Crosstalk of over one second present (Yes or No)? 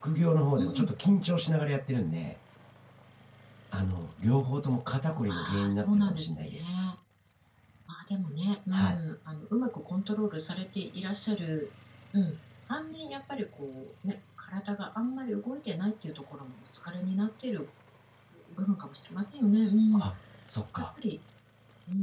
Yes